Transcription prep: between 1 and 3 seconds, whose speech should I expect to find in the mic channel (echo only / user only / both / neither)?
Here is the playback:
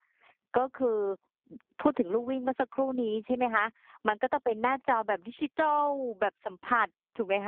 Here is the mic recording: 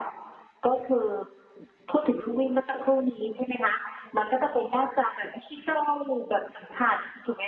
echo only